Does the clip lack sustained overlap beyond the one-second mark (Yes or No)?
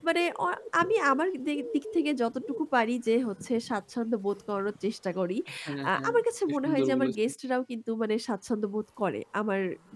No